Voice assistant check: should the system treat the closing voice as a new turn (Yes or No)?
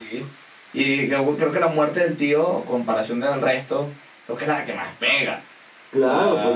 Yes